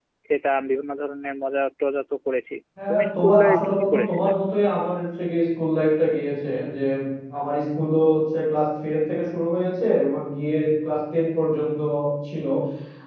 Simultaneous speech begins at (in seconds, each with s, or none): 2.8 s